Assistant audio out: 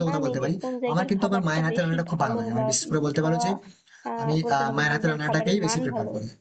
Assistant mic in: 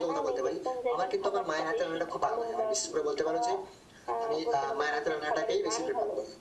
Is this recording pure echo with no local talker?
Yes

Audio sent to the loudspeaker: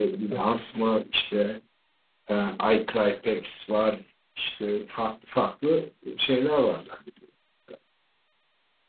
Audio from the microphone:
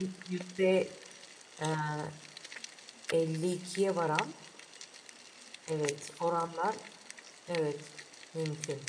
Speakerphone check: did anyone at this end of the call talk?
Yes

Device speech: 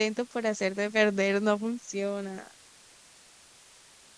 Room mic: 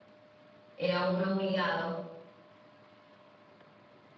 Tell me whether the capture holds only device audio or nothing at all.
No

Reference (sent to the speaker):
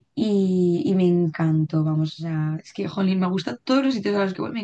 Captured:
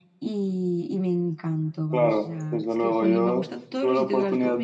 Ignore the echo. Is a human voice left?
Yes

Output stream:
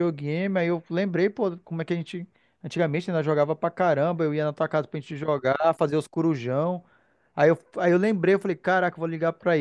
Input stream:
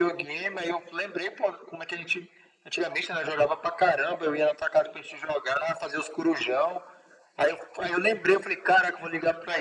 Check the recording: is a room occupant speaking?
No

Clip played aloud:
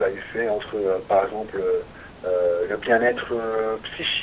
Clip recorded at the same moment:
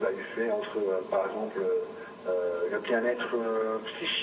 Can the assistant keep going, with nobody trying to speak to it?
Yes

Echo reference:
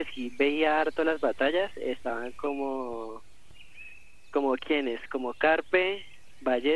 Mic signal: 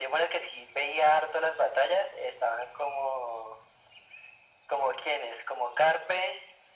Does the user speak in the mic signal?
No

